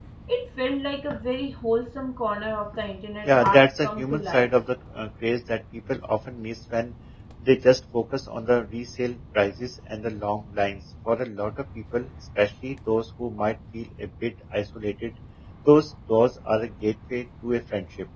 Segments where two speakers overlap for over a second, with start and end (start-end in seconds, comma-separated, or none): 3.2-4.5